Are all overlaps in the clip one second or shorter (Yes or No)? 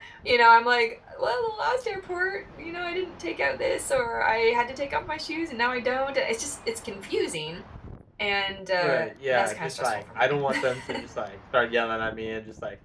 No